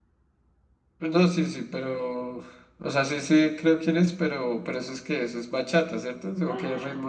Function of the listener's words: taking over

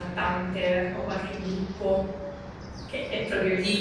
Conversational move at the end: taking over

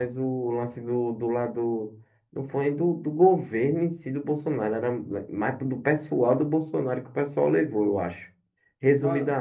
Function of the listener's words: taking over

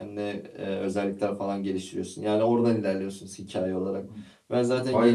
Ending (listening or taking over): listening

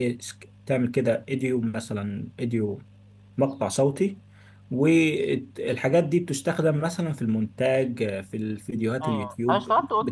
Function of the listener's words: taking over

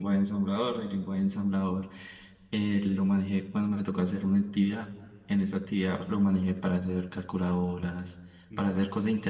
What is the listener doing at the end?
listening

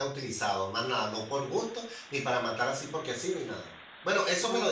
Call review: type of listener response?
taking over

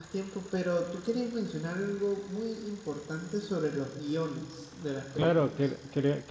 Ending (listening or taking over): taking over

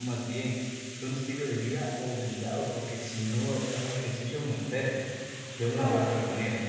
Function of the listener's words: listening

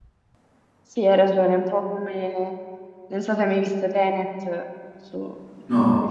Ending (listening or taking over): listening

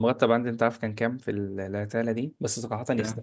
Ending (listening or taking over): listening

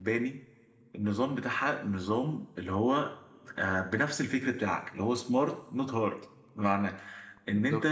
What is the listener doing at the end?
listening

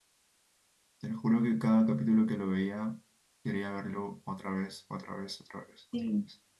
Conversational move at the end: taking over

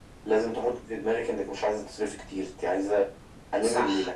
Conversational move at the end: taking over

